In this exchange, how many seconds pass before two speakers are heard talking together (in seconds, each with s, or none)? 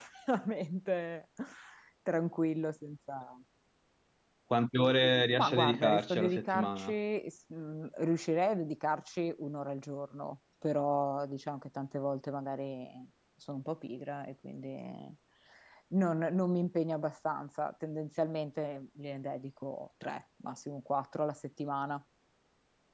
5.4 s